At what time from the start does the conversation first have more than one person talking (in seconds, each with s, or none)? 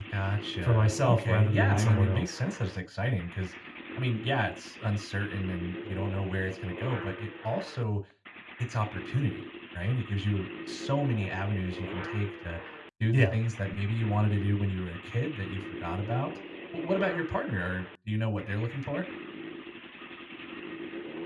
0.6 s